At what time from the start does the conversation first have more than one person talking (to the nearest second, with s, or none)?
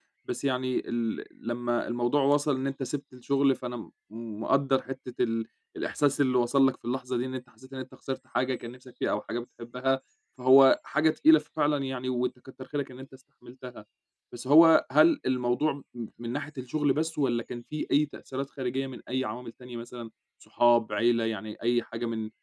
none